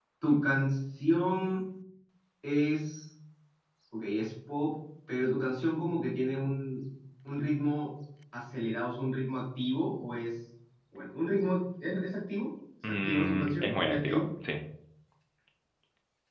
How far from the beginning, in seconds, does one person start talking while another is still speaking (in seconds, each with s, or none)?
12.8 s